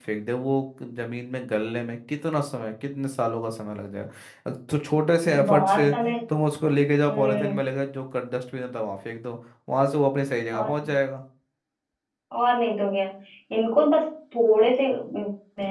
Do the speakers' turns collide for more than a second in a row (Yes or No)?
No